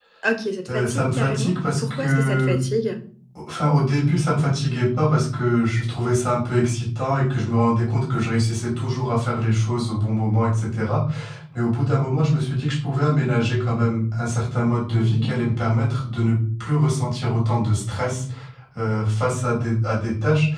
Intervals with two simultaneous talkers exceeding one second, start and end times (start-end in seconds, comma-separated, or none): 0.7-2.6